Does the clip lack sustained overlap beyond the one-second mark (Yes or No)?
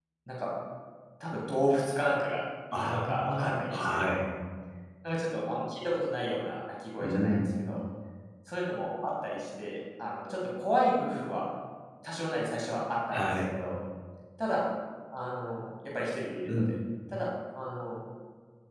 No